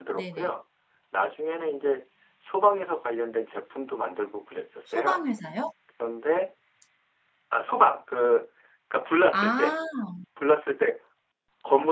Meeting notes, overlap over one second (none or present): none